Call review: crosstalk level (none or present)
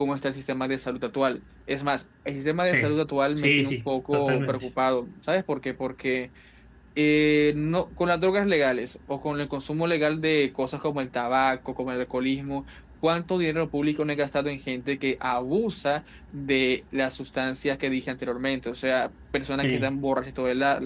present